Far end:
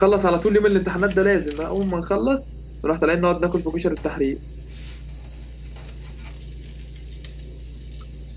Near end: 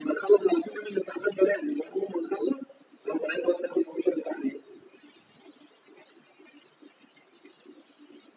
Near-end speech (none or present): none